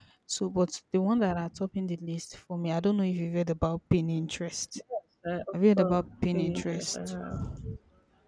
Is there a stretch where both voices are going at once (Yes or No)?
Yes